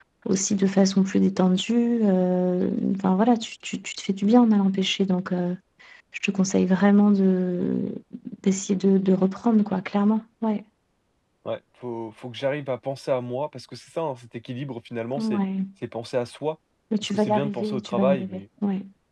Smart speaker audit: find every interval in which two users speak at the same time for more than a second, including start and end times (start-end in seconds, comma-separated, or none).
17.0-18.4